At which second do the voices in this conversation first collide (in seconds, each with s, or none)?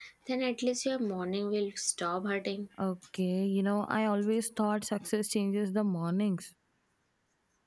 none